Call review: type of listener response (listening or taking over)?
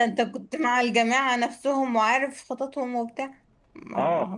taking over